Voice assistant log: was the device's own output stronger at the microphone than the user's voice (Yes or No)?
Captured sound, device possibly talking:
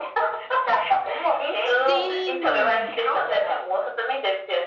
Yes